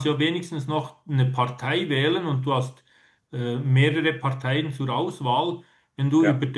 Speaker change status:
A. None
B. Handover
A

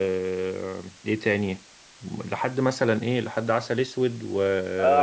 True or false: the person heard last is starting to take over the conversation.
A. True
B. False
A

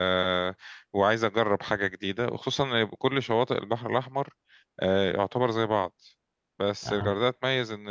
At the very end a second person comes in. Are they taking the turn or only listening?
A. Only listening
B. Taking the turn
A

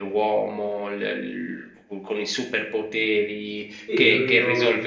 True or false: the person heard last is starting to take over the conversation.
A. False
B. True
B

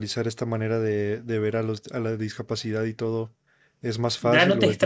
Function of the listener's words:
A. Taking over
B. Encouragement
A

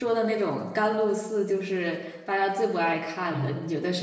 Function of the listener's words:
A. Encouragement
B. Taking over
B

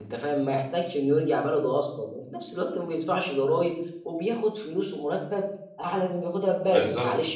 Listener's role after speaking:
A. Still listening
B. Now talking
A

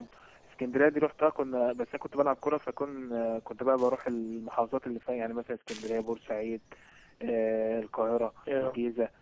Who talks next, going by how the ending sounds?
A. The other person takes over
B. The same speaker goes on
B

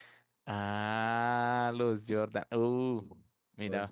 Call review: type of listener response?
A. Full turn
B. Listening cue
B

